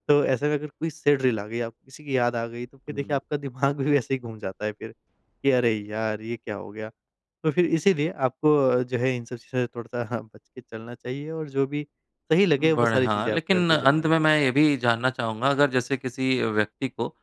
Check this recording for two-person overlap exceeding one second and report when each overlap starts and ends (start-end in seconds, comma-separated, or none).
12.6-14.1